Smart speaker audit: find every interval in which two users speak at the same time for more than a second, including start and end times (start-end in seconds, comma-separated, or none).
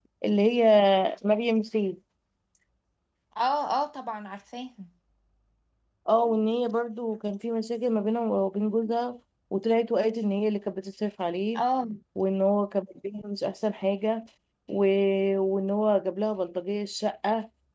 none